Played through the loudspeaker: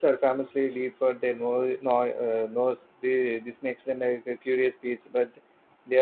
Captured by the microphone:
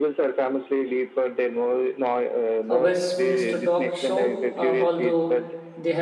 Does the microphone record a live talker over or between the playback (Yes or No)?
Yes